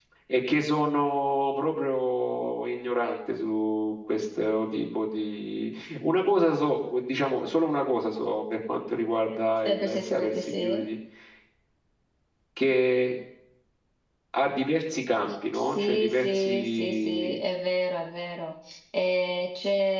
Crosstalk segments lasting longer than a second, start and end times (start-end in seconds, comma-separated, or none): 9.6-10.8, 15.5-17.4